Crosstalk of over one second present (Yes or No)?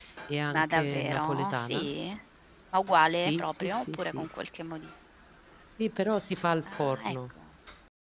Yes